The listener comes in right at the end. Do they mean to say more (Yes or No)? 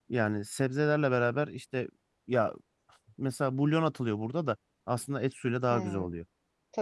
Yes